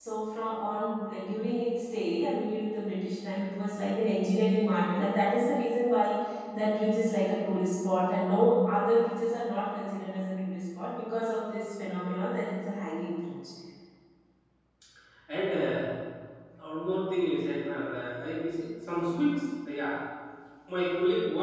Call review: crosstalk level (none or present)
none